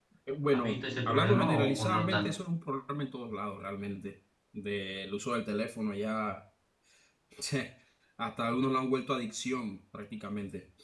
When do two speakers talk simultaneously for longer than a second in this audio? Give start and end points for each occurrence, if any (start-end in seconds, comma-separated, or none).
0.5-2.3